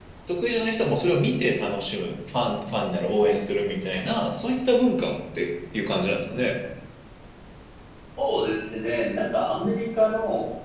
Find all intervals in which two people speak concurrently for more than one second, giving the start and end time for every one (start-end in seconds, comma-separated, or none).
none